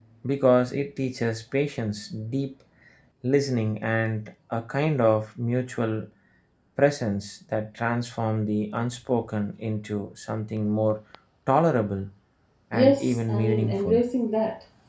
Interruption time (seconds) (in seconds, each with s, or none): 12.7 s